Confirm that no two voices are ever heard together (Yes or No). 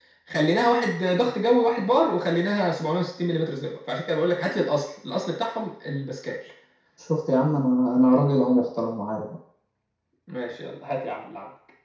Yes